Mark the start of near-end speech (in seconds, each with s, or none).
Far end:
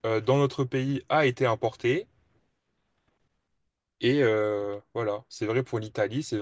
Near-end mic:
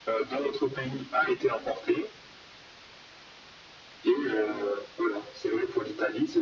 none